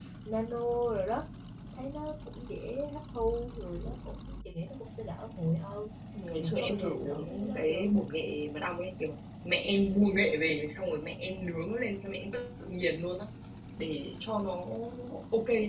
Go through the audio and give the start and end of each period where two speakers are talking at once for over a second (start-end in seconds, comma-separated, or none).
6.3-7.9